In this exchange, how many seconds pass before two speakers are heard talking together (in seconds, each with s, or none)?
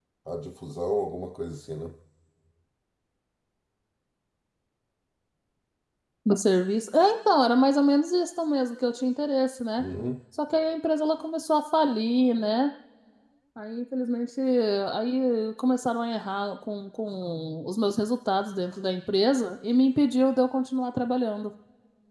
none